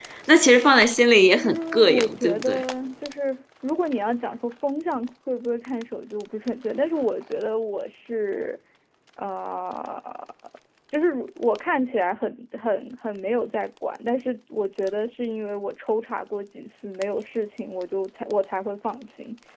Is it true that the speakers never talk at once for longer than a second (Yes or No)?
No